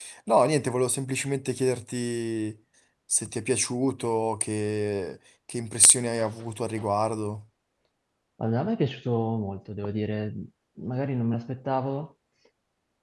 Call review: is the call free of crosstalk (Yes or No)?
Yes